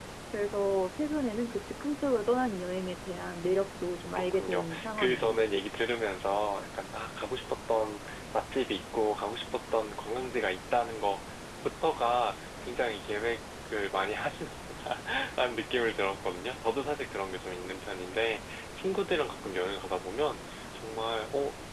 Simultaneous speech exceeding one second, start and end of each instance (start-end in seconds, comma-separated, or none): 4.2-5.4